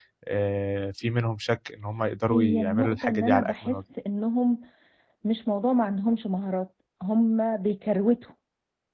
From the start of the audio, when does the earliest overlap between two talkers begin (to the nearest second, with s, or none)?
2 s